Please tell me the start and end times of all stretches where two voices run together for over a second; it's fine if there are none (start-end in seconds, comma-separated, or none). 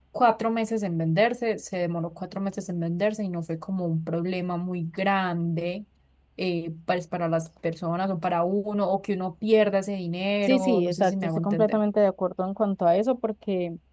10.5-11.8